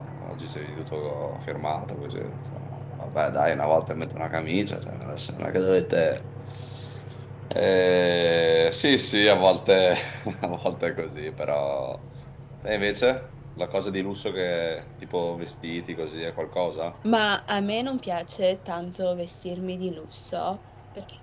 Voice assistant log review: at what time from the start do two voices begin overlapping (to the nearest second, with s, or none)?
none